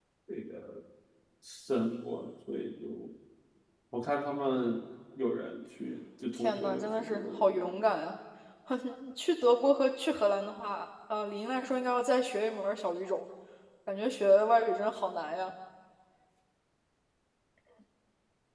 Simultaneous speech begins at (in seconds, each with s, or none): 6.4 s